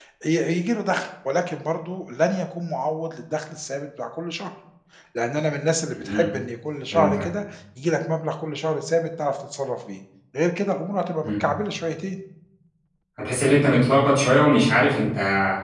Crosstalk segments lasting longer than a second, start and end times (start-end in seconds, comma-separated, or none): none